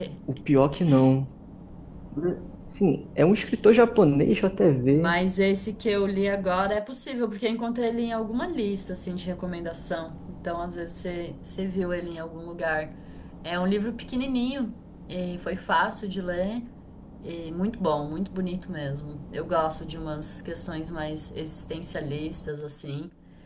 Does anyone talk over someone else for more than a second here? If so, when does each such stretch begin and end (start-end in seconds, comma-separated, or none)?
none